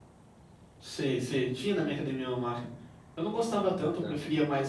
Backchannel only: Yes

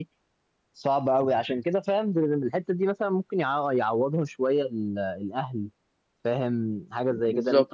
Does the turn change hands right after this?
No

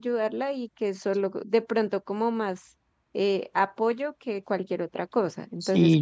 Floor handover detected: Yes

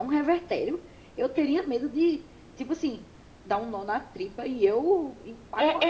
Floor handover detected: Yes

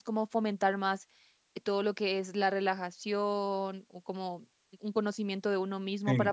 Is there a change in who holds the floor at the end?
No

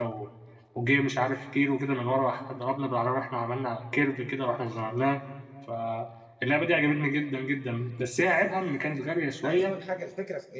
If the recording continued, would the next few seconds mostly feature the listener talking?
Yes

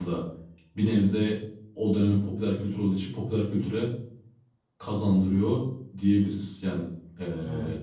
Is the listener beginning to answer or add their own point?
No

